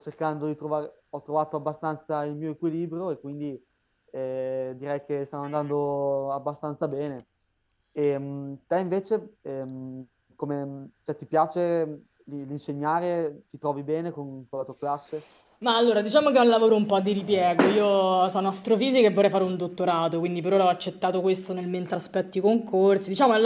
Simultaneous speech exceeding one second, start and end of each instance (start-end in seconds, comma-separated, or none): none